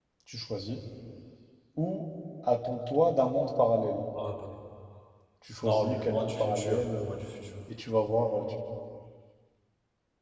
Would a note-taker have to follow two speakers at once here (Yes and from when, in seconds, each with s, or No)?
Yes, from 5.6 s